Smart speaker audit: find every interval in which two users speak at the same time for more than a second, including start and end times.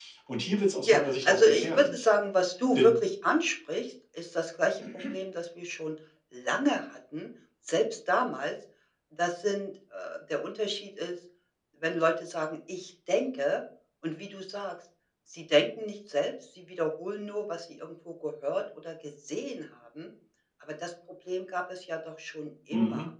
0.8-2.1

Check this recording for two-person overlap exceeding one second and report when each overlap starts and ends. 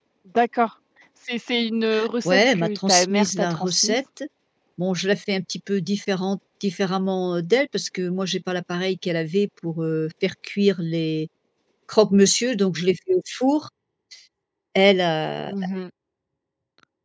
2.2-4.0

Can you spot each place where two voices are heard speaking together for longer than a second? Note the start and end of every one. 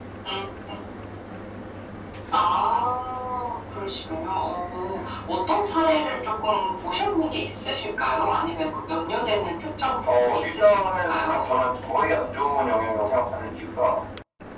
10.1-11.5

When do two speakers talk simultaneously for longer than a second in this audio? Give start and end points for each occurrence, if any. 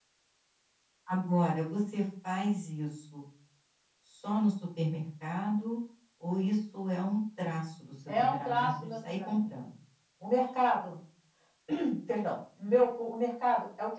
8.2-9.4

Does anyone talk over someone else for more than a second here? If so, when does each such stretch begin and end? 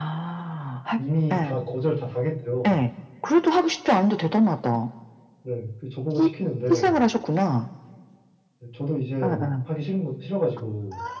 none

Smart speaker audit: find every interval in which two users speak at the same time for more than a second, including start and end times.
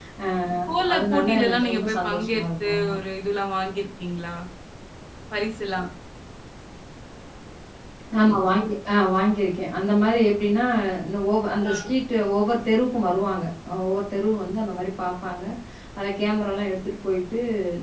0.9-3.0

